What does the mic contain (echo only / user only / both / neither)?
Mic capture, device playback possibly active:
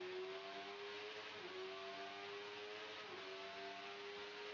neither